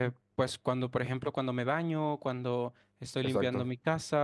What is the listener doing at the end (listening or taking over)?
listening